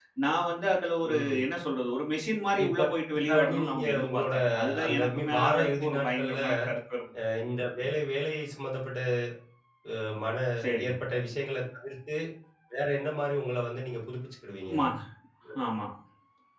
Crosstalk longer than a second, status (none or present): present